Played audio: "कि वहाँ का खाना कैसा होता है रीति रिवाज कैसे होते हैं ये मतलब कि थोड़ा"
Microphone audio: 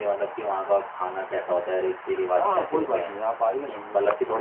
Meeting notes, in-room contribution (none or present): present